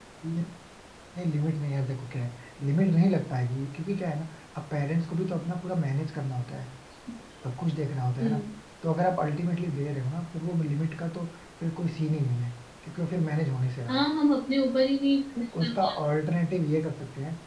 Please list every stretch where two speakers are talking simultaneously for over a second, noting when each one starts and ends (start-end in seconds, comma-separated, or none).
none